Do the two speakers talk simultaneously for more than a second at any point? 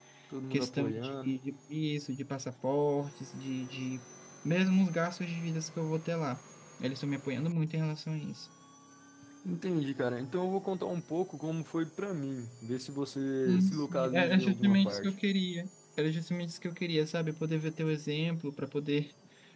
Yes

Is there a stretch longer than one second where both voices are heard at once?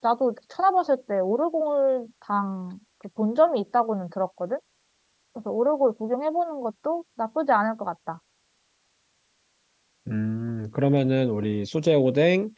No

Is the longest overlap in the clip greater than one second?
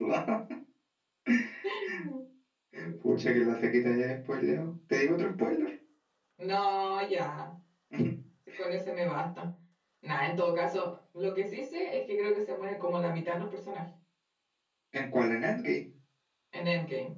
No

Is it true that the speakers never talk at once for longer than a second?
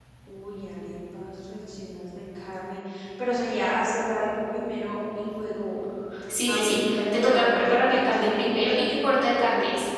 No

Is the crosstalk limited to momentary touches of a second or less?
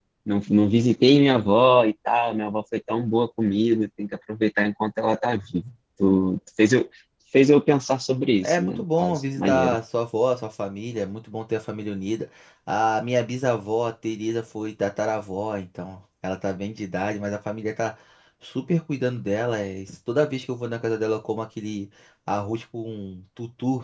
No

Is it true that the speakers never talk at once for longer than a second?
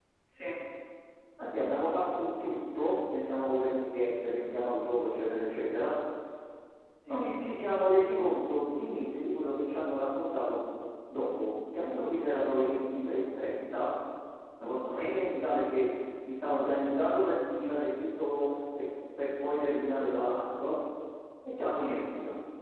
Yes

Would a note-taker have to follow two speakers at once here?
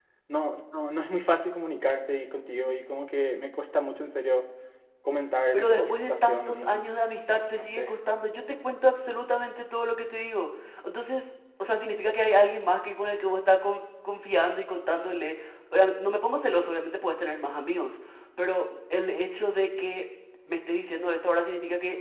Yes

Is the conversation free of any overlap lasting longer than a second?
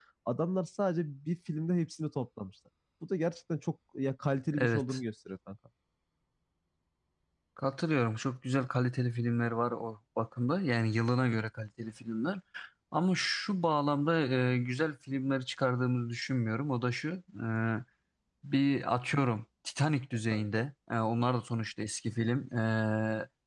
Yes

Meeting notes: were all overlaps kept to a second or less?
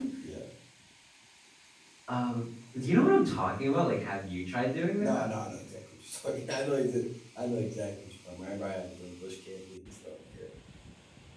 Yes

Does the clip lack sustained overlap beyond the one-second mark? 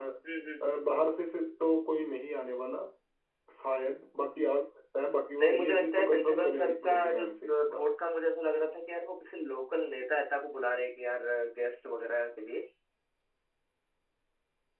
No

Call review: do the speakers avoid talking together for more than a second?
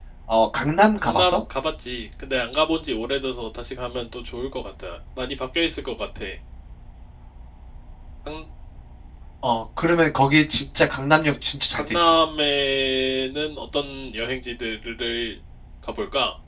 Yes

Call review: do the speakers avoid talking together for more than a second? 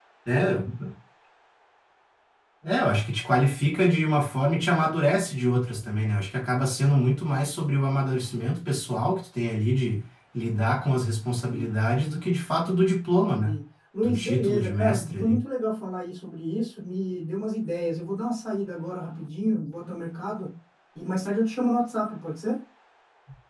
No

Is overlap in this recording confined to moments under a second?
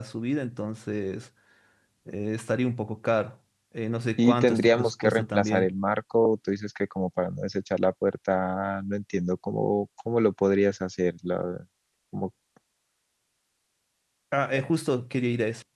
No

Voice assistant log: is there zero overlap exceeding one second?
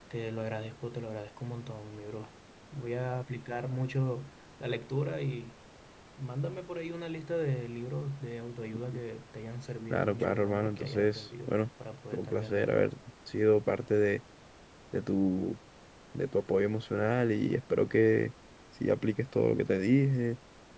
No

